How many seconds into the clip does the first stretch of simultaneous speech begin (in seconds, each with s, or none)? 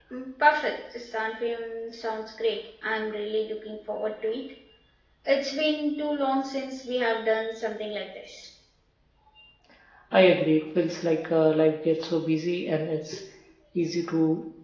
none